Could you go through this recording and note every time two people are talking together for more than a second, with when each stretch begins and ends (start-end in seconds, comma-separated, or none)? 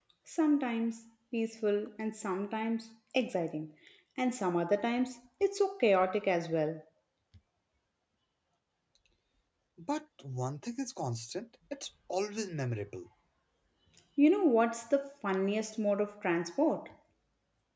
none